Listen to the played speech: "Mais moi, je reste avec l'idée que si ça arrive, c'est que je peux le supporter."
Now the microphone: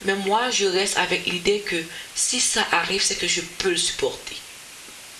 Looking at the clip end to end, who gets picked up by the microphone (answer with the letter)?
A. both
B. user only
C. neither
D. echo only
D